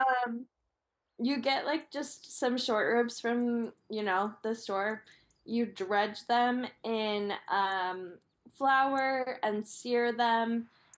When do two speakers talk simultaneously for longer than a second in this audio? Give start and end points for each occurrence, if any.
none

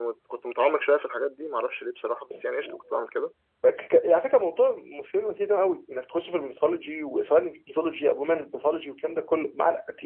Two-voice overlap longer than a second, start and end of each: none

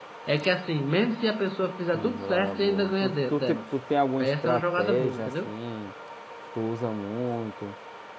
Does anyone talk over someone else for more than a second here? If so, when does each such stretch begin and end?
1.9-3.6, 4.2-5.5

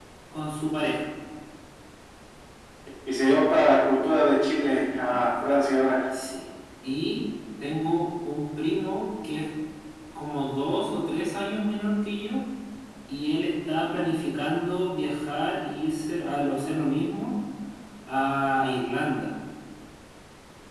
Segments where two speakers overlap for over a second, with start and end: none

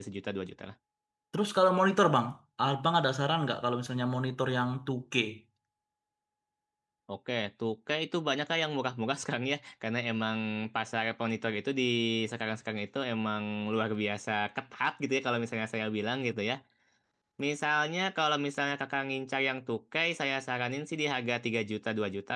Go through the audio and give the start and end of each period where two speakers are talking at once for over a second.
none

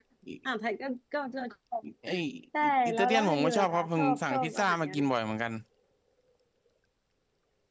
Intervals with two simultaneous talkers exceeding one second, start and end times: 2.6-5.0

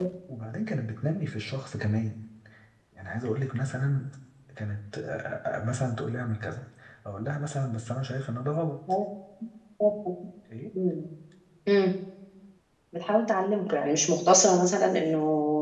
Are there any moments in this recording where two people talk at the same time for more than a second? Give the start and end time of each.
none

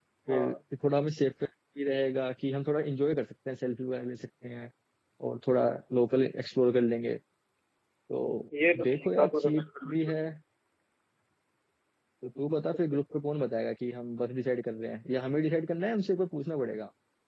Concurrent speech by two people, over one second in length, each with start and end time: 8.8-10.0

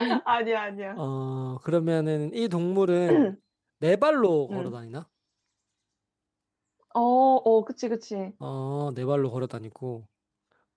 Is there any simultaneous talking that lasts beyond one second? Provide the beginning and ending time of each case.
none

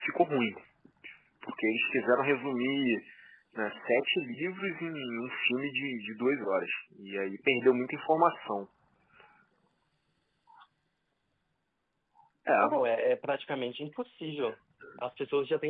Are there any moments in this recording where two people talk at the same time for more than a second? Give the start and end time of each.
none

